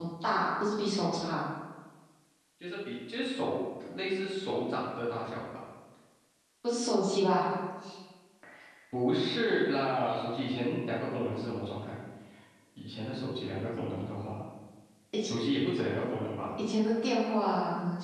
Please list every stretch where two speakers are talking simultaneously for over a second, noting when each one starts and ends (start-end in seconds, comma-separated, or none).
none